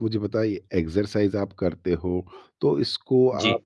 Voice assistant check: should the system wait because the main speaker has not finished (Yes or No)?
Yes